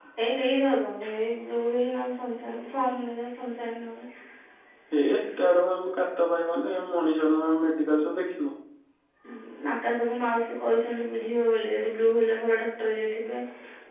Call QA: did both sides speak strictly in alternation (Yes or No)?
Yes